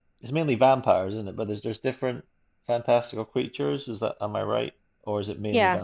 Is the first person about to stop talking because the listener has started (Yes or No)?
Yes